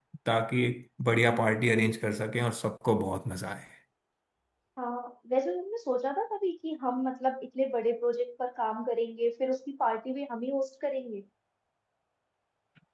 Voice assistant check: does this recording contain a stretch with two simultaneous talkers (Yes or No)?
No